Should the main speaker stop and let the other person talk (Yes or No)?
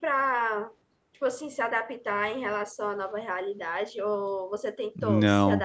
Yes